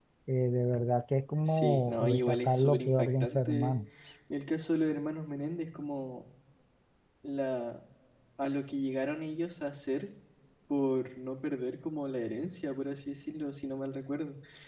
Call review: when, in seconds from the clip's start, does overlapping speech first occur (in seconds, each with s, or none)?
1.4 s